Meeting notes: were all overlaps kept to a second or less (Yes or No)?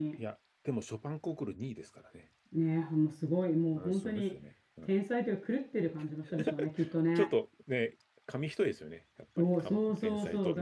No